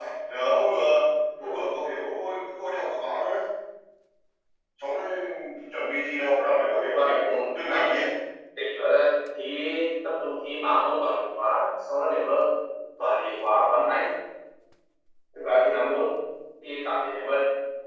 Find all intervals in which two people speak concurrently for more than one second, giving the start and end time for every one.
6.6-8.0

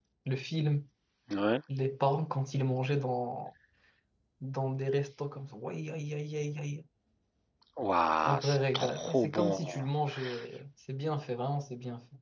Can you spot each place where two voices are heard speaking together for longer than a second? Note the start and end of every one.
8.2-9.6

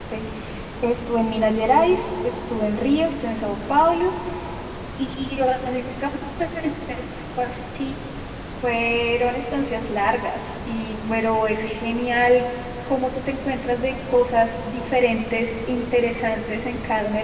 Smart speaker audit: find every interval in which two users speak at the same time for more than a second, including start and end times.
none

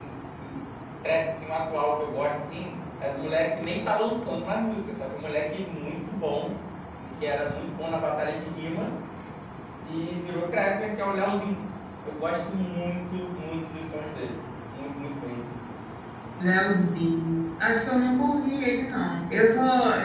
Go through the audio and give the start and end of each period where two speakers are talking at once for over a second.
none

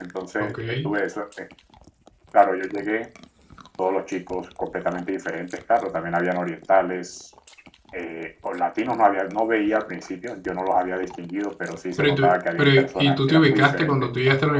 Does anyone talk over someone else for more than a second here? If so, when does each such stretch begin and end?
12.0-13.9

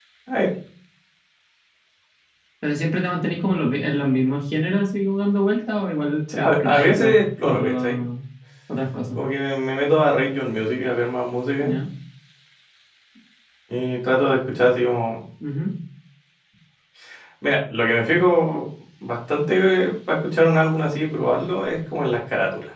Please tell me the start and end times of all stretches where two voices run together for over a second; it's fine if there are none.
6.3-8.0

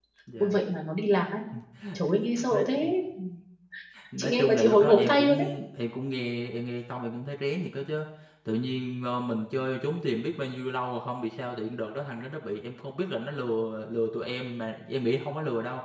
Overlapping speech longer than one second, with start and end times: 4.2-5.5

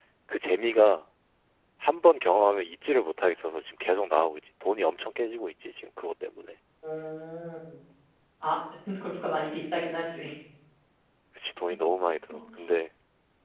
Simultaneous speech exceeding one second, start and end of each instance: none

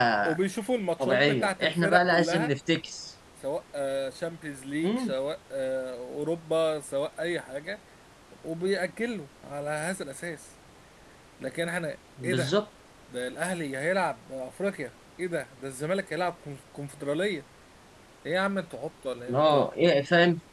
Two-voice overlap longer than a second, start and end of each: 1.0-2.5

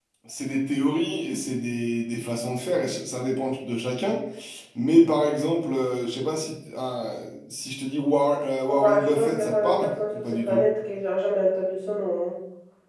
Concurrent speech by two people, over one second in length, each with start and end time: 8.7-10.6

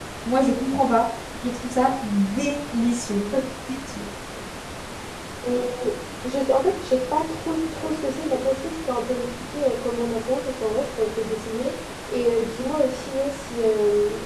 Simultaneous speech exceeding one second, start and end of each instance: none

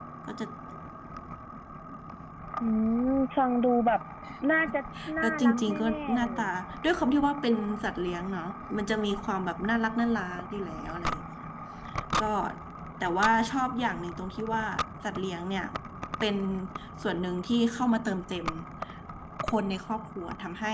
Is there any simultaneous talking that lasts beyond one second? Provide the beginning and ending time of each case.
5.2-6.5

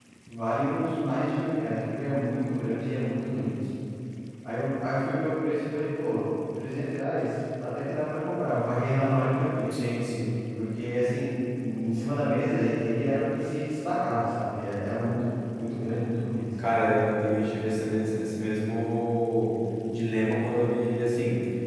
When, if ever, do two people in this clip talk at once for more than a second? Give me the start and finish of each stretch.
none

